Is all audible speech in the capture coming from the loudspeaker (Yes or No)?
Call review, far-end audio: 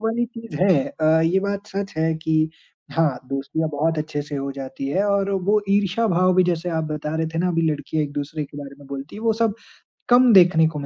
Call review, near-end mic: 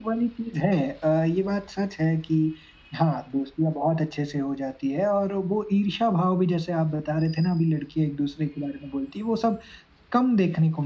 Yes